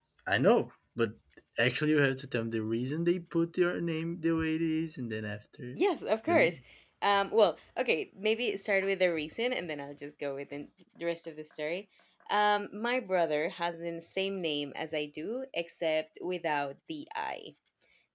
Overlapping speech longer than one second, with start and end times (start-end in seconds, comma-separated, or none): none